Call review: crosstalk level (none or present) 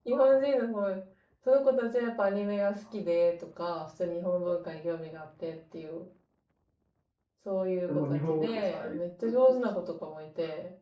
present